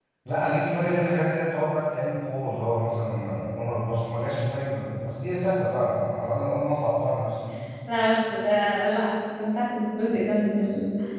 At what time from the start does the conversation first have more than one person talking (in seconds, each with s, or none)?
none